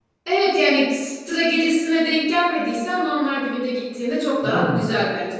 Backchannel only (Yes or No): Yes